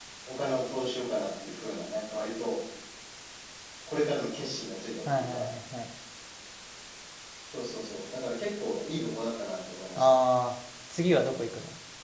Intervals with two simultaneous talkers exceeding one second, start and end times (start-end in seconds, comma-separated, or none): none